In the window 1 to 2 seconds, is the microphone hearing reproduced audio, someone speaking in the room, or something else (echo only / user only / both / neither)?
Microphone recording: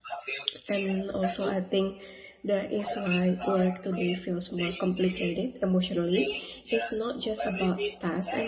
both